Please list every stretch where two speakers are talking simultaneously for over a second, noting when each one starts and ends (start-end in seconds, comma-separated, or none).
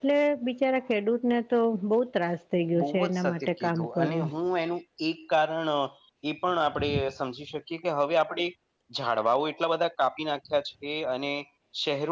2.8-4.3